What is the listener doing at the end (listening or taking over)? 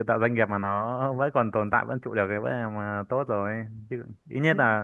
listening